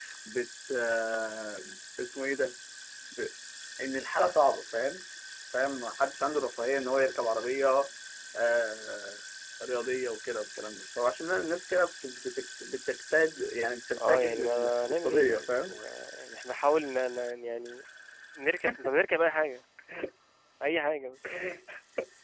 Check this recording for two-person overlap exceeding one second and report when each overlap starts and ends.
14.1-15.7

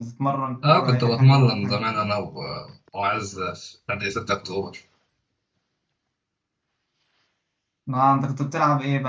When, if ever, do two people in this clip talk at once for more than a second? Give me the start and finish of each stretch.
0.6-2.1

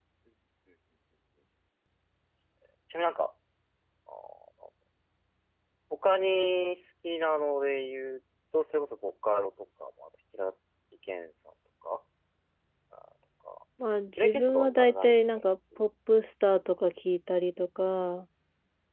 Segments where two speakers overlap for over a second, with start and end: 14.1-15.5

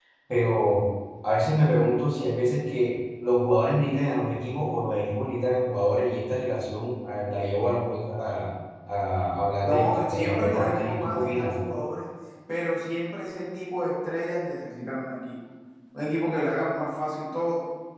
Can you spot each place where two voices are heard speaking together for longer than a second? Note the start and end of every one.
9.6-11.6

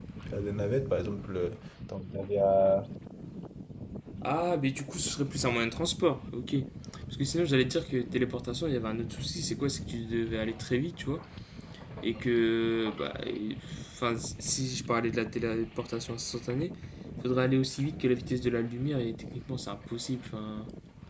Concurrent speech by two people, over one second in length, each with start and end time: none

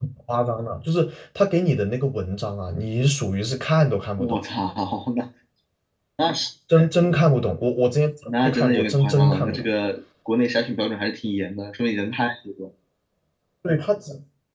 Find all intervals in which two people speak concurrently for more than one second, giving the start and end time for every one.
8.4-9.7

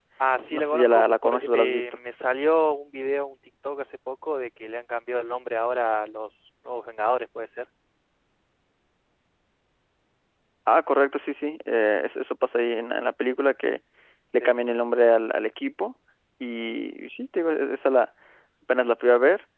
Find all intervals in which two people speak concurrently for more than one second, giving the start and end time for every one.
0.5-1.8

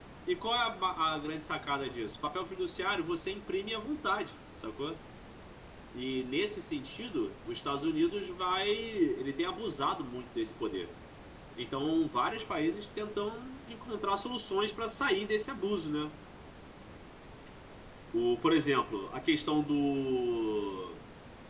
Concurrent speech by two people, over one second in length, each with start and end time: none

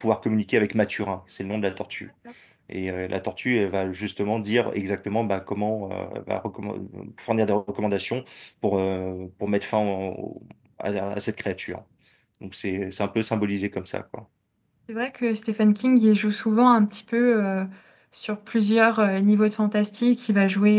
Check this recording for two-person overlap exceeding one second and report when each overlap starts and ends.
none

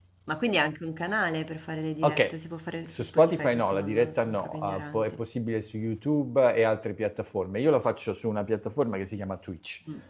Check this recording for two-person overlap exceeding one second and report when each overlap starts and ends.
2.9-5.1

